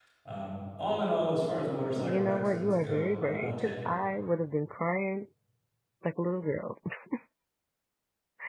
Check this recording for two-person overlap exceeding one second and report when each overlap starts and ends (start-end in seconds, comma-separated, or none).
2.0-3.7